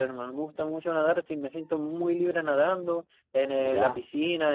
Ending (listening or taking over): listening